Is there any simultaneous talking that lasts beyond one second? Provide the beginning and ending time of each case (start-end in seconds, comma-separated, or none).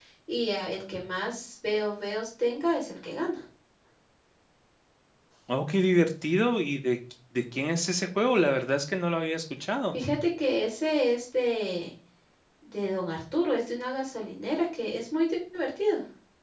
none